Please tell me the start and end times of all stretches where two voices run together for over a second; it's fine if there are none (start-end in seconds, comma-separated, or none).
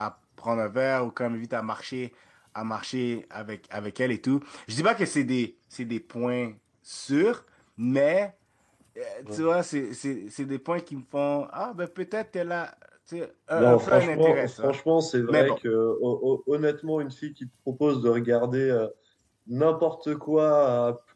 13.6-14.8